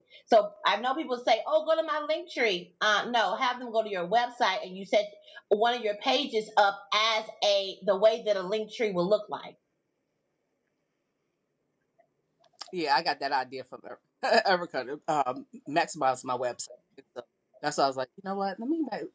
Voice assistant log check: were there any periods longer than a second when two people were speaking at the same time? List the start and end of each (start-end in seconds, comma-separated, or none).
none